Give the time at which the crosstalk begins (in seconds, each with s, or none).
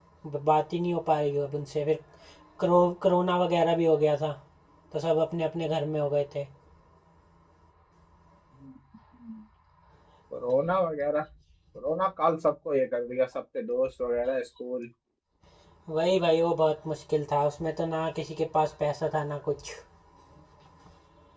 none